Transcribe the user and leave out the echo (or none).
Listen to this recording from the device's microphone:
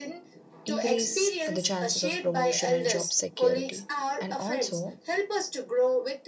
increase the chances of promotion and job security. And also,